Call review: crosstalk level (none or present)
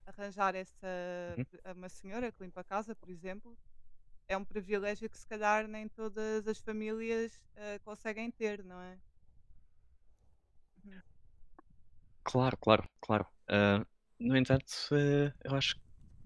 none